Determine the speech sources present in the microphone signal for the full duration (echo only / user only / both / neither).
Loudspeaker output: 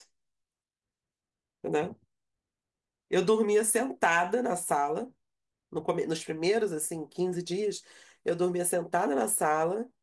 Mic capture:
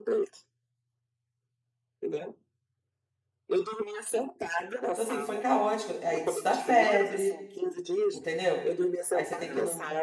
both